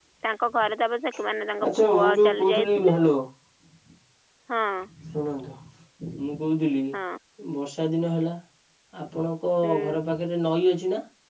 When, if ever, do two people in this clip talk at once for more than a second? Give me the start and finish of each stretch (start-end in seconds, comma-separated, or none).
1.6-3.0